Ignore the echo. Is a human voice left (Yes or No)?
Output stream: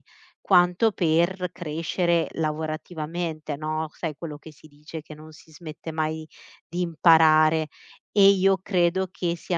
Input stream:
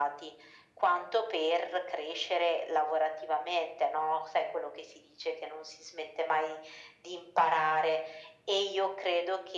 No